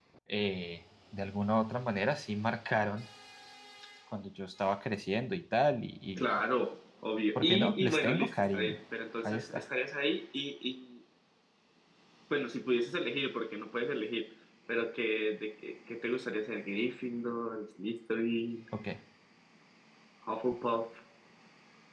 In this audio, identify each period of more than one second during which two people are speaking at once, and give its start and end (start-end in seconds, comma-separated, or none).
7.4-8.8